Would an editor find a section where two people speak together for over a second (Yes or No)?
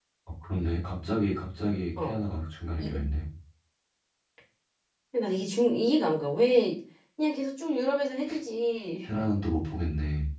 No